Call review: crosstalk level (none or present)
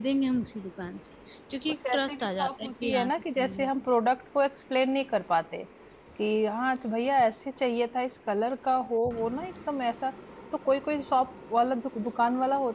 present